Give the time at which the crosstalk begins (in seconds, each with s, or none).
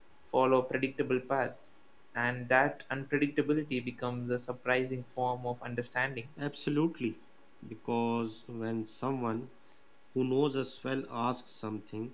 none